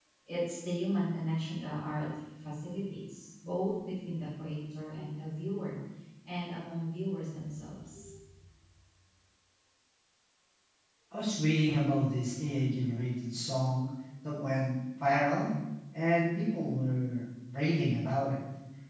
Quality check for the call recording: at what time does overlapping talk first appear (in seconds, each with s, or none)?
none